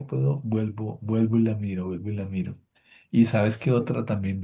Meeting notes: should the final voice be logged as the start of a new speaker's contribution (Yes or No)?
No